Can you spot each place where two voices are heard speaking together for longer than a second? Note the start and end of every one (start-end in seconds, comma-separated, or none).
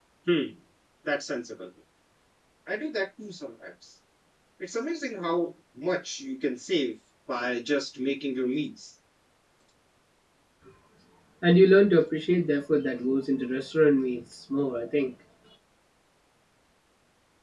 none